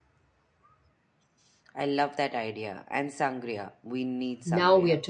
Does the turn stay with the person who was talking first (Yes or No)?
No